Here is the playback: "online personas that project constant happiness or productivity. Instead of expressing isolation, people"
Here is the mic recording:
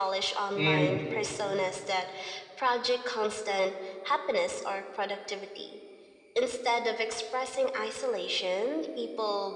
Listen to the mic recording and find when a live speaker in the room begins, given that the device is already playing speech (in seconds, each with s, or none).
0.5 s